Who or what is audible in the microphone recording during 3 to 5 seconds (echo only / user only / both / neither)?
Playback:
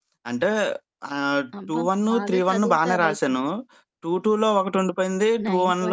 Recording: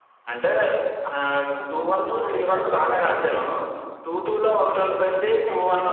echo only